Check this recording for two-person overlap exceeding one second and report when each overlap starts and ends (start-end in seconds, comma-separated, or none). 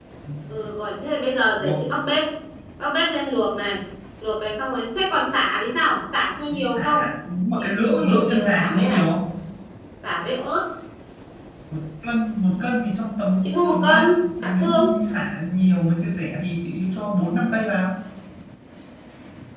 7.6-9.0, 13.4-14.9